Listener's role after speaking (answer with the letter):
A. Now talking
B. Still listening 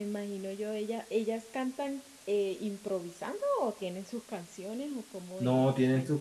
A